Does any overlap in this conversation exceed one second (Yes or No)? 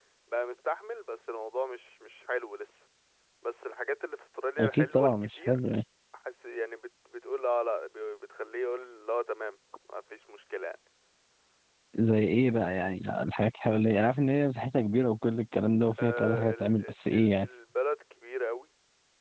Yes